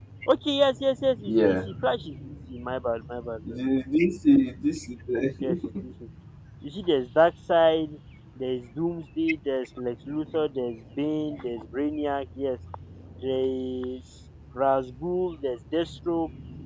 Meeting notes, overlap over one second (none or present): none